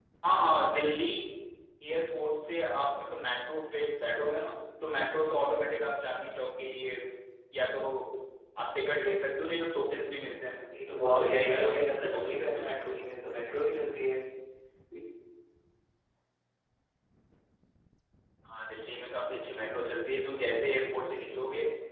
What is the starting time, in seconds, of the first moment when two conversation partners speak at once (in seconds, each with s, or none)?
11.0 s